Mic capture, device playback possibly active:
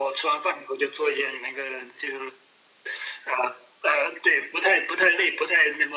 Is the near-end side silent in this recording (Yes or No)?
Yes